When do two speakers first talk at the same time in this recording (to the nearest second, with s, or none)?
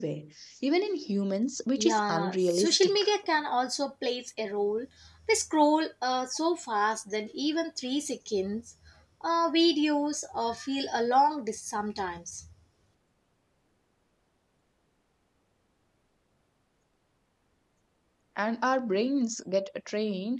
2 s